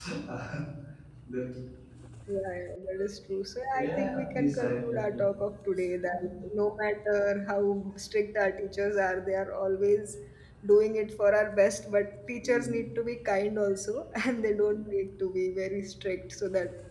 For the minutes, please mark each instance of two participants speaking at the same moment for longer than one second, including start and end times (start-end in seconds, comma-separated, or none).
3.7-5.0